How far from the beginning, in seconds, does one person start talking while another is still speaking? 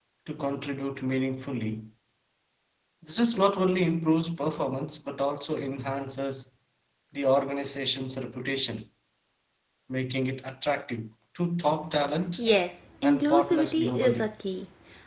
13 s

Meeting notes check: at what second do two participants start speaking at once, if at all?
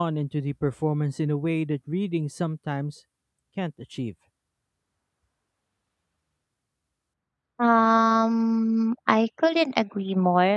none

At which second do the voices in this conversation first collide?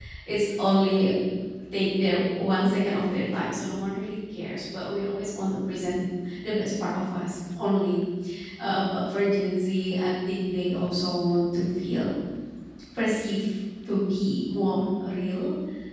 none

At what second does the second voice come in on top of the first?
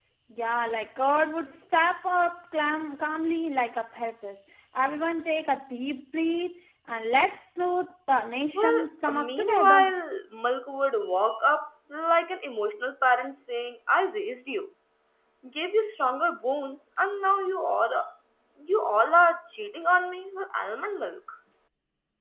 9 s

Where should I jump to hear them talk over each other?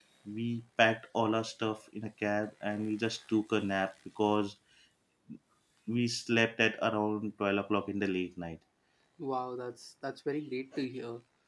none

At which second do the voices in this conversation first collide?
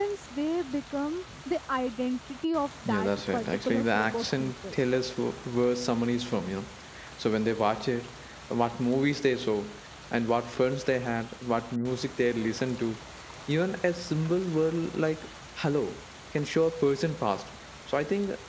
3 s

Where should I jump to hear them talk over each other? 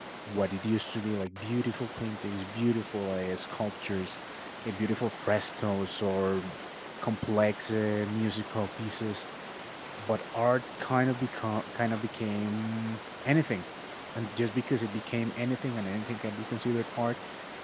none

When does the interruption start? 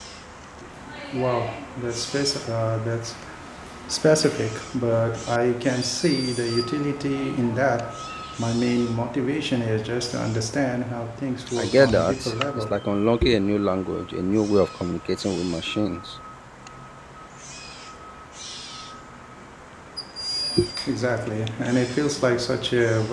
12 s

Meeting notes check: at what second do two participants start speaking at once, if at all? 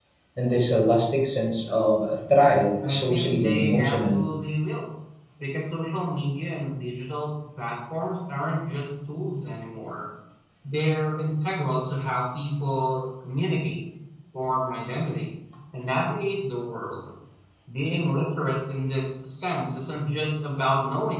3 s

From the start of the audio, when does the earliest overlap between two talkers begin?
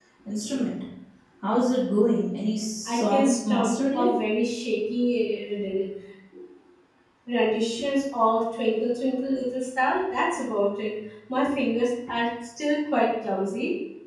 3 s

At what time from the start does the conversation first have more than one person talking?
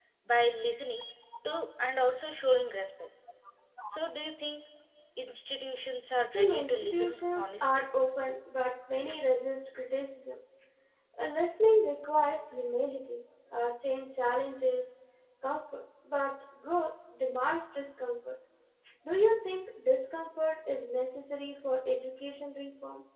6 s

